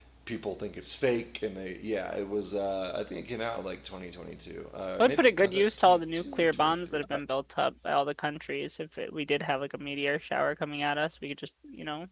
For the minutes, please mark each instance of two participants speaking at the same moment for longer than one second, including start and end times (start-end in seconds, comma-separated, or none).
5.0-7.0